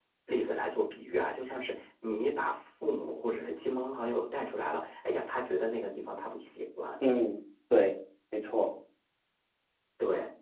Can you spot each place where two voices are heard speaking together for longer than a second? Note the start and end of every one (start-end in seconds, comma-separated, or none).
none